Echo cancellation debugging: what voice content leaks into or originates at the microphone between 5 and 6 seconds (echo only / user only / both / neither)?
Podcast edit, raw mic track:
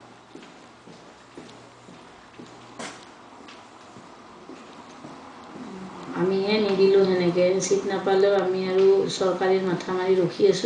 user only